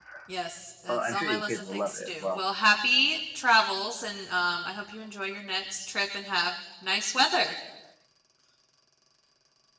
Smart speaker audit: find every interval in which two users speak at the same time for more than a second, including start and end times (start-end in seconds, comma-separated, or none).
0.9-2.4